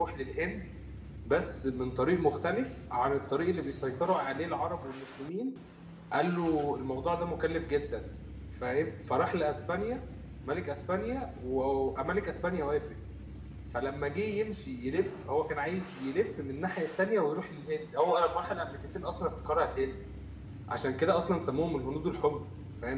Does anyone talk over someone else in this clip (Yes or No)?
No